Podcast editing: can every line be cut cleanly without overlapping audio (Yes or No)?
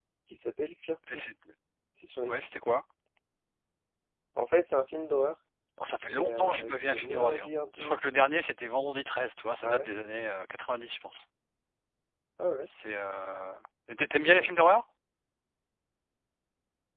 No